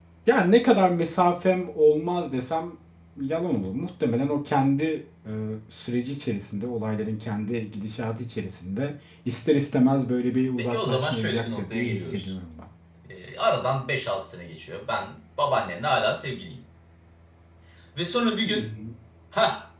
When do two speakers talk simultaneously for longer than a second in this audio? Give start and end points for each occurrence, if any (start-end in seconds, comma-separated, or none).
10.6-12.3